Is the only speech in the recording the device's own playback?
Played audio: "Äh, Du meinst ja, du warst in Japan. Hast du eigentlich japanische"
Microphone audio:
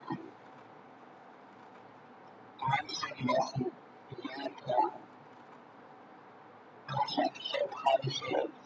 Yes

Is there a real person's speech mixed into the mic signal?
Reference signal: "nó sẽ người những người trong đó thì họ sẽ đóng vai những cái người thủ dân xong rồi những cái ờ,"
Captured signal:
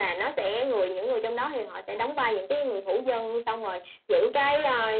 No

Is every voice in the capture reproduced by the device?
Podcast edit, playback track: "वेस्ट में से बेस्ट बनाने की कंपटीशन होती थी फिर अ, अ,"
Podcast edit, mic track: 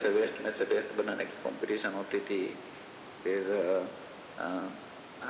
Yes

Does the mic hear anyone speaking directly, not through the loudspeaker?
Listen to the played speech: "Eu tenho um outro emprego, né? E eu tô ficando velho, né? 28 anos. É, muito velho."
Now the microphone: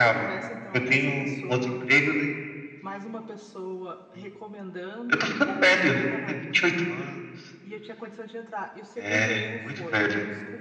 Yes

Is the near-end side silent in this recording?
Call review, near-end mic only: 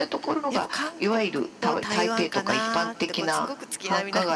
No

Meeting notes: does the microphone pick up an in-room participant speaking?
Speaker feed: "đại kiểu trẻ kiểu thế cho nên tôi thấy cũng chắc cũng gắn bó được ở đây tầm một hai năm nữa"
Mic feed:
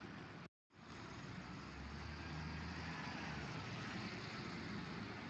No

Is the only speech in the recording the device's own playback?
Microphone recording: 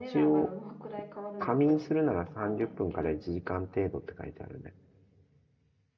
No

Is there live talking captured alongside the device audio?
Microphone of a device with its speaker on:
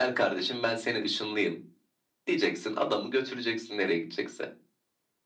No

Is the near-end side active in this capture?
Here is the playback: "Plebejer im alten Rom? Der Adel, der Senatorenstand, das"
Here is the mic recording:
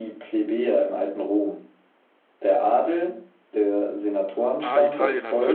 Yes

